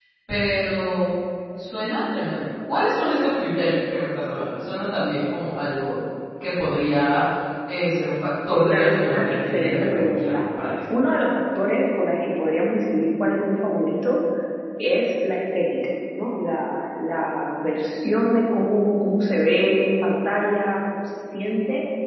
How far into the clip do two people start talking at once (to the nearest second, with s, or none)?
9 s